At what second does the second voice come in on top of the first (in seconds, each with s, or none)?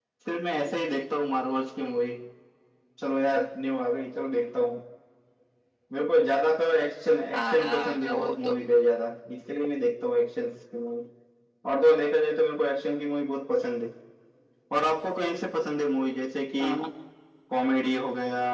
7.3 s